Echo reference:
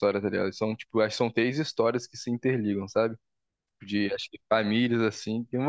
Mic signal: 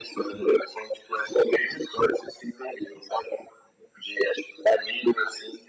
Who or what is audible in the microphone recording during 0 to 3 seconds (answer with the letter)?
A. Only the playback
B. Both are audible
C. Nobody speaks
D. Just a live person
A